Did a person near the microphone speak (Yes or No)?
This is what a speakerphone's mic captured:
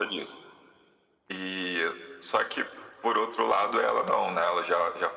No